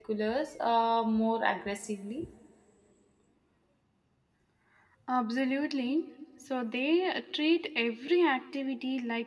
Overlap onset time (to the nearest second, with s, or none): none